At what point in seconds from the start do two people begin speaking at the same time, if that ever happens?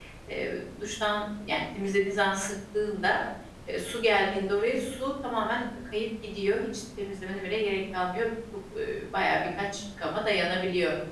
none

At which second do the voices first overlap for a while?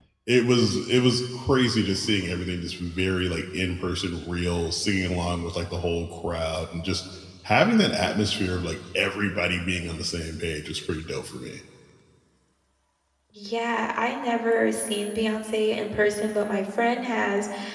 none

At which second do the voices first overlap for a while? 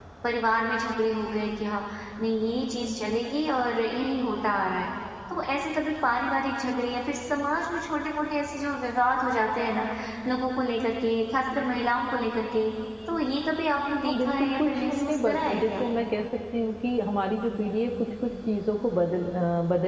14.0 s

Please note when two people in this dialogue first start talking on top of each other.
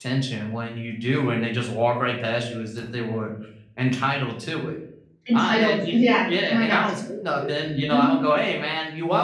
5.3 s

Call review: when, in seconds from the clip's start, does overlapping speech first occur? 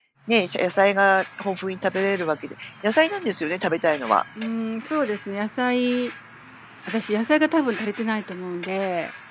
none

